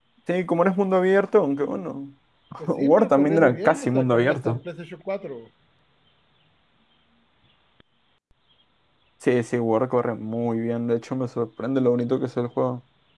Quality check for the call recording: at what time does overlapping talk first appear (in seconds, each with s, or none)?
2.7 s